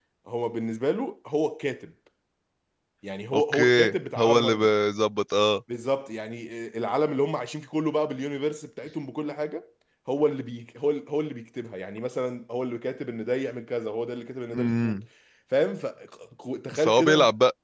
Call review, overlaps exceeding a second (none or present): present